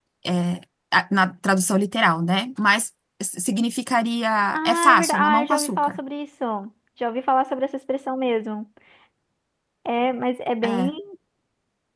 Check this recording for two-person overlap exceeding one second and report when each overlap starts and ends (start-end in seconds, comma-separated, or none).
4.5-6.0